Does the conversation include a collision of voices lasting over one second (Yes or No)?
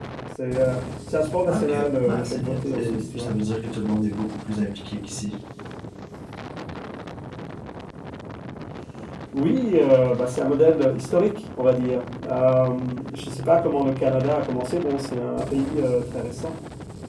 Yes